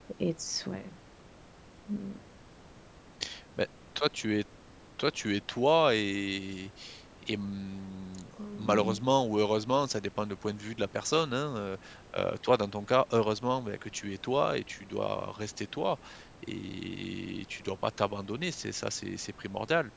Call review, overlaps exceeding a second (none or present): none